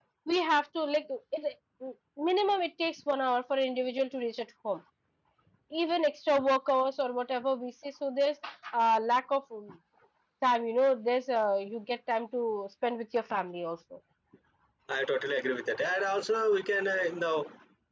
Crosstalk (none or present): none